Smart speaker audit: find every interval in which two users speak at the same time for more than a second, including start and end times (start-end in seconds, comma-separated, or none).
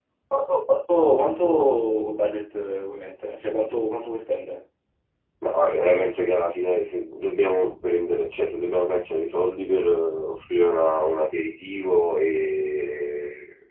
none